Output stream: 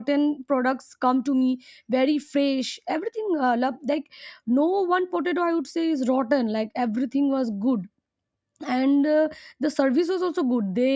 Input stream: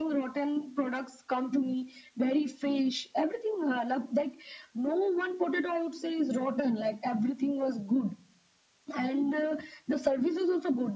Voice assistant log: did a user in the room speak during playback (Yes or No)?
No